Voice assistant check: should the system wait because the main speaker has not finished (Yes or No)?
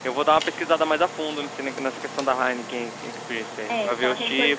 No